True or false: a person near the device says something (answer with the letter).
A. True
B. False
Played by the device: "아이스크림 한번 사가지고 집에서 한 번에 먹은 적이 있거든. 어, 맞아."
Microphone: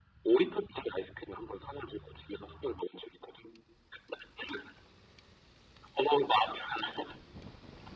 B